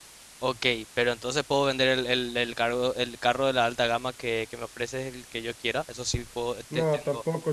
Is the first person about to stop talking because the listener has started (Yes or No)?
Yes